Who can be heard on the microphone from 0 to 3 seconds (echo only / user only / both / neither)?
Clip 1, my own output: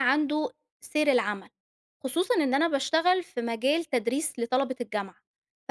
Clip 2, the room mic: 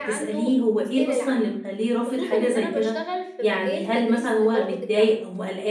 both